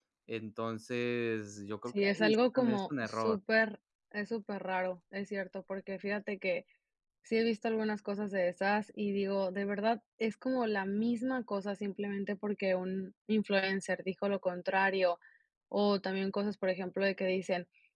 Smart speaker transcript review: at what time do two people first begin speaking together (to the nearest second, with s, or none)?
2 s